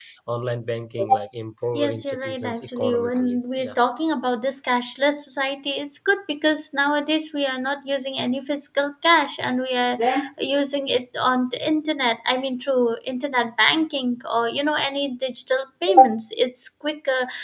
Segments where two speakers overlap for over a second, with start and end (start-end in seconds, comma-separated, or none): 1.7-3.8